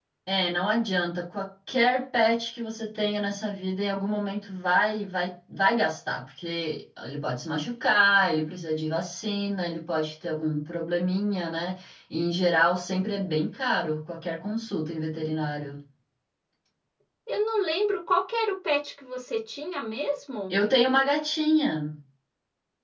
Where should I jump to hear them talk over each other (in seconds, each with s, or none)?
none